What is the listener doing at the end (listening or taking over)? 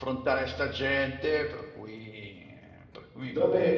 taking over